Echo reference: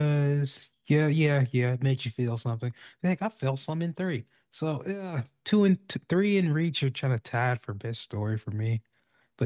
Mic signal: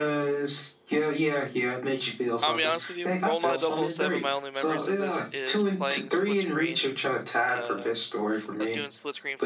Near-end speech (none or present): present